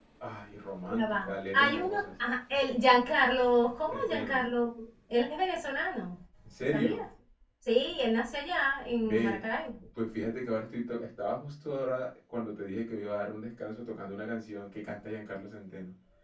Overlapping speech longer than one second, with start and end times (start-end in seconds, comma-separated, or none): 0.9-2.1